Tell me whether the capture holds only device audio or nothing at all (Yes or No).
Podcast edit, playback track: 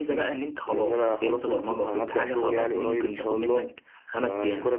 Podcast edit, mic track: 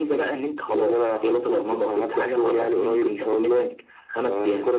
Yes